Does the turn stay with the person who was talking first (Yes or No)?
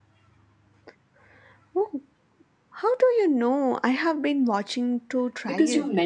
No